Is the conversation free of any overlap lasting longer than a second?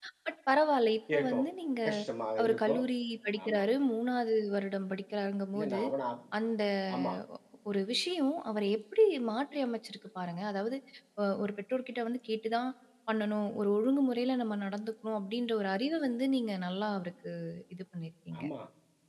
Yes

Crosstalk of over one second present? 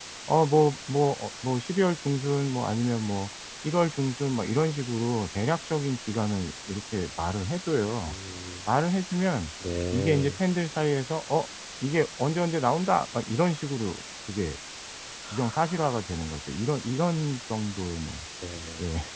No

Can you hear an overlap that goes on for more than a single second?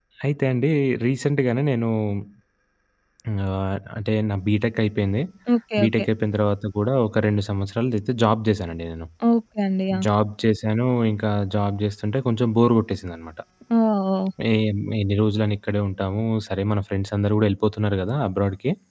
No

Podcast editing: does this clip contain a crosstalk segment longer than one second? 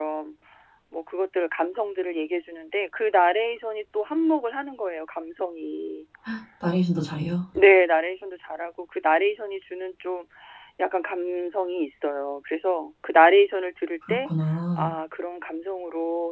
No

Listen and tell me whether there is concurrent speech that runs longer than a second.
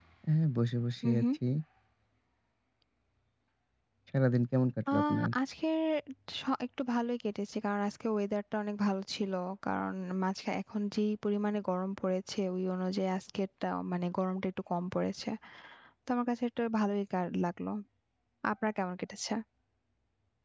No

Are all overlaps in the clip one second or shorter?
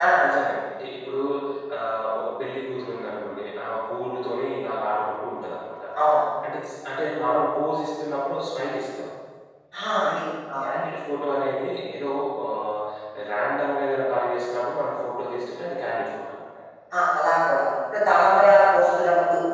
Yes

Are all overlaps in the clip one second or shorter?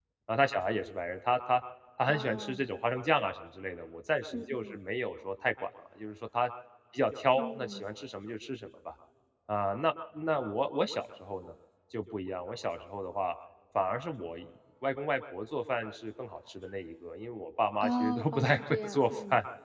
No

